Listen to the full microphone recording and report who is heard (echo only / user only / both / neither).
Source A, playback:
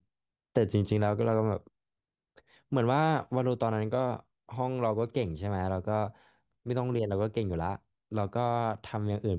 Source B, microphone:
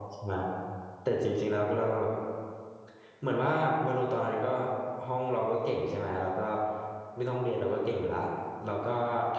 echo only